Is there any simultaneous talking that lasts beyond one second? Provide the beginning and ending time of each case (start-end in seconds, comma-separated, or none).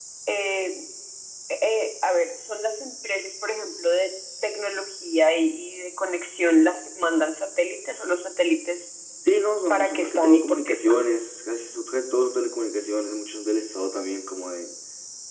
9.7-11.0